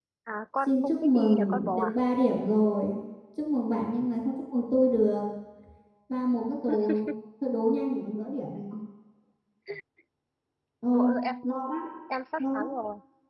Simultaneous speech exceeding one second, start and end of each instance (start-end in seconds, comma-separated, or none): 0.6-1.9